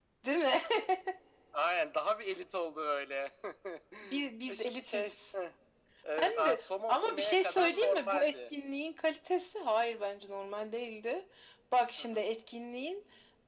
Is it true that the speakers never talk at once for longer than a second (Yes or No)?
No